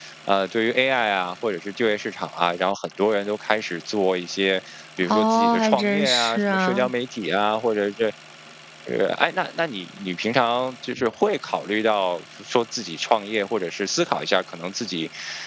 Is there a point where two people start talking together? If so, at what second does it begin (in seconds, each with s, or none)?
5.0 s